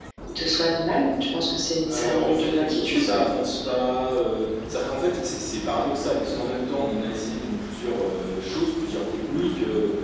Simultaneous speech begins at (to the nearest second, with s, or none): 2 s